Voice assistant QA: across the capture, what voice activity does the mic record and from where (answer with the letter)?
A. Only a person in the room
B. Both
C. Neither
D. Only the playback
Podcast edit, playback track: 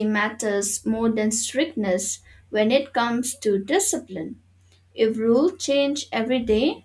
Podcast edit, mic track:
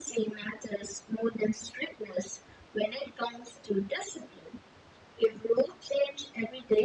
D